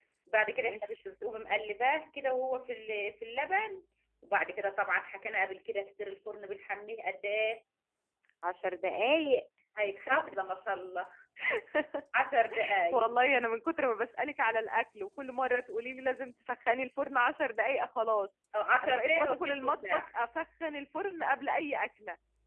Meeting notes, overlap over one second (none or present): present